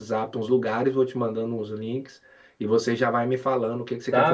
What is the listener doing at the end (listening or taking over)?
taking over